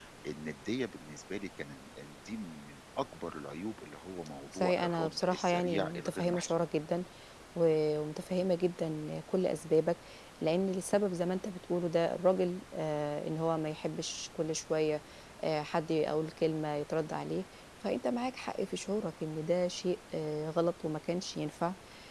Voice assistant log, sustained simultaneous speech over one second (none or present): present